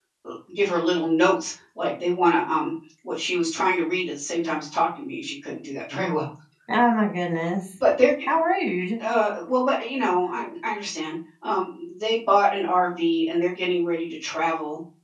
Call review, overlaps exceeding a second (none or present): none